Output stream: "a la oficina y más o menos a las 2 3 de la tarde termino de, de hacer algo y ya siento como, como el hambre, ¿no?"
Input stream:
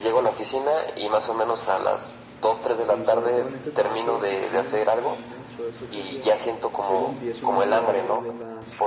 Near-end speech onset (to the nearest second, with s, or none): 3 s